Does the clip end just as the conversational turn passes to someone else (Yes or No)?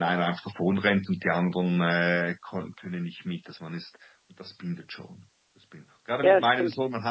No